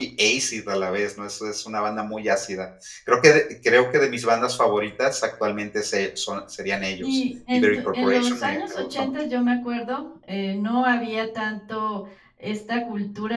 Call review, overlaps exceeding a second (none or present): present